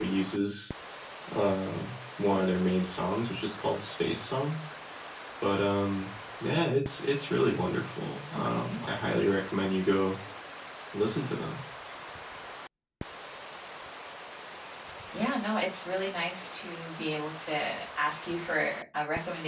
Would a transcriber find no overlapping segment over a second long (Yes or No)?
Yes